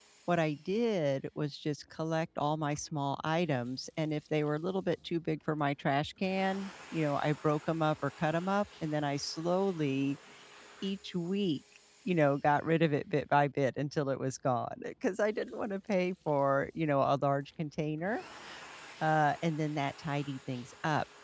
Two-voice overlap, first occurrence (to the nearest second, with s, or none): none